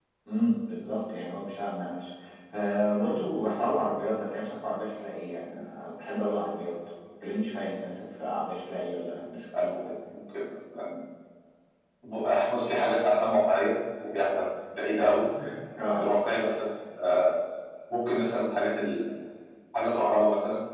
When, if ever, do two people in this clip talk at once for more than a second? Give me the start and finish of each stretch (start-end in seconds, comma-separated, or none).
none